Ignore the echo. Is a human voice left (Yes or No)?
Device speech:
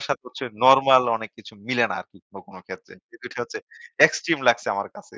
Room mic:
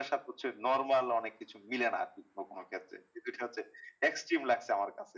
No